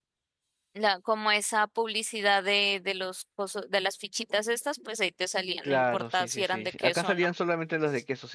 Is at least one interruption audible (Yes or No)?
Yes